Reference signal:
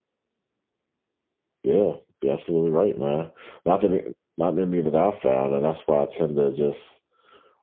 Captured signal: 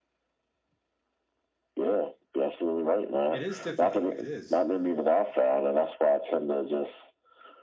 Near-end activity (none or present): present